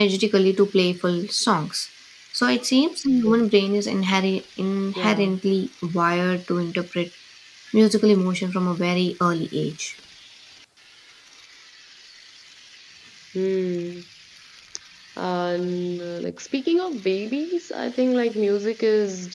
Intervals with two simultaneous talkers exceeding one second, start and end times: none

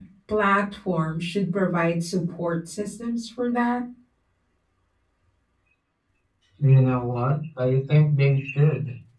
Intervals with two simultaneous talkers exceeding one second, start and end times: none

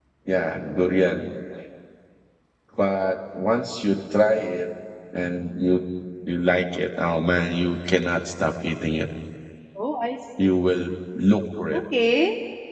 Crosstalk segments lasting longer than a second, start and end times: none

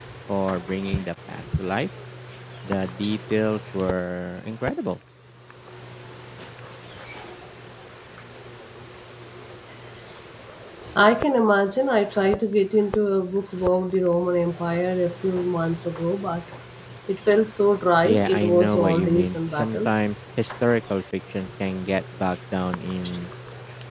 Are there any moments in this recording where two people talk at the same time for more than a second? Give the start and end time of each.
18.0-19.9

